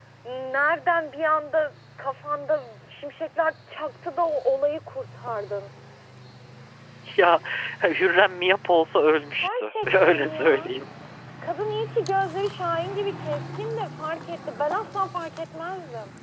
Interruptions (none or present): present